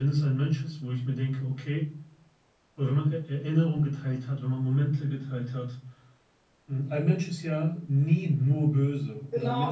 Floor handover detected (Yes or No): Yes